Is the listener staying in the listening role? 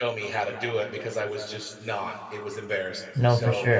No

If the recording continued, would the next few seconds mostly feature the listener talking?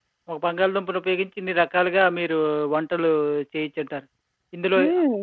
No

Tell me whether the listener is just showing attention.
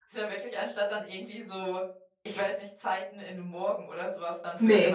No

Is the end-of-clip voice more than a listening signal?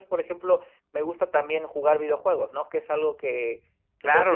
Yes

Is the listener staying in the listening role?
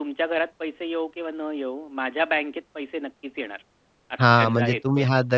No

